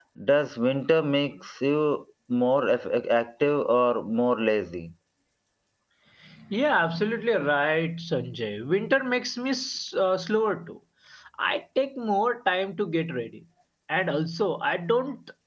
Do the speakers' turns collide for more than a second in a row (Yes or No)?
No